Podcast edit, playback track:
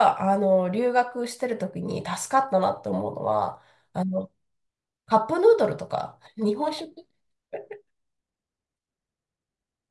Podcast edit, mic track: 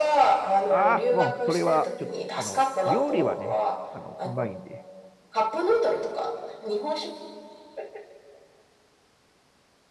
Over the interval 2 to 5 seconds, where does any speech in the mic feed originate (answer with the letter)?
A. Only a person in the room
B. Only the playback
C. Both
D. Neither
C